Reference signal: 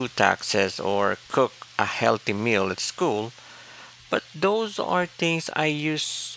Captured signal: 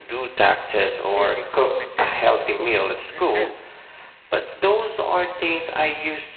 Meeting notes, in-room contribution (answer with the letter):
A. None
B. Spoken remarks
B